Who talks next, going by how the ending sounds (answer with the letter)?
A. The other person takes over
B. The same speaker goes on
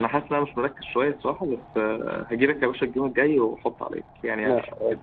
A